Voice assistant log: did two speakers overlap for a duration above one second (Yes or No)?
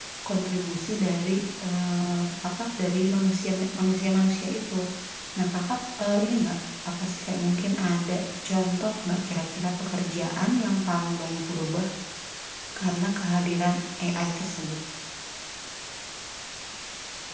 No